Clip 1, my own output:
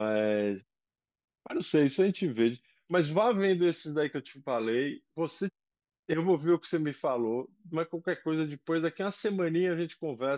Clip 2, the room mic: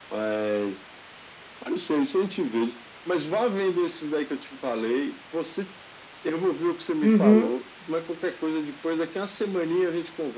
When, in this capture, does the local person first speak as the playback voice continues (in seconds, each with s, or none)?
7.0 s